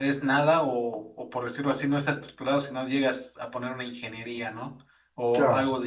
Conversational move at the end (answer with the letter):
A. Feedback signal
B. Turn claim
A